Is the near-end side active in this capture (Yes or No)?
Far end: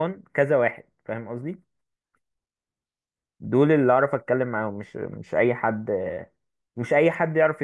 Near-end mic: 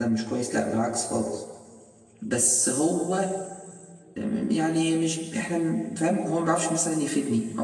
Yes